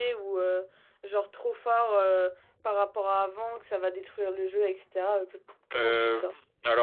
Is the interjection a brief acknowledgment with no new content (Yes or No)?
No